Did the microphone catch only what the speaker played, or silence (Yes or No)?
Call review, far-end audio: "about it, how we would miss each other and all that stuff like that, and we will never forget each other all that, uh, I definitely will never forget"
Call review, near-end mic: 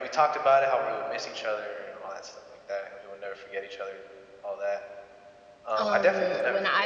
No